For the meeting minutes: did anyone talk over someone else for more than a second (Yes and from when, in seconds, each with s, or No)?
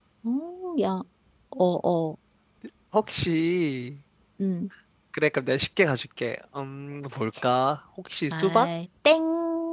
No